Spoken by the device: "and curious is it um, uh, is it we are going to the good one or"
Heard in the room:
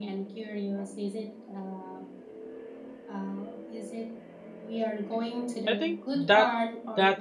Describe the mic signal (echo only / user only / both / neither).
both